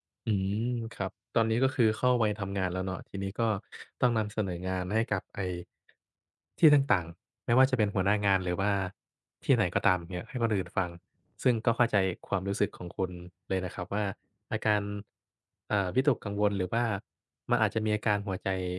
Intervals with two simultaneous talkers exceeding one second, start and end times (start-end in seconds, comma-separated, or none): none